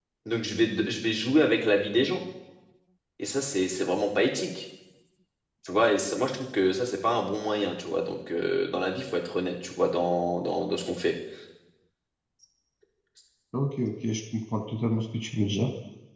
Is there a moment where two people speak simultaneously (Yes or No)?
No